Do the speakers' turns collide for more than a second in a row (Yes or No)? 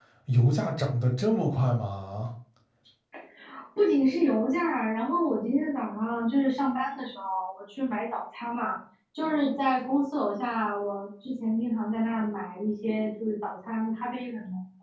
No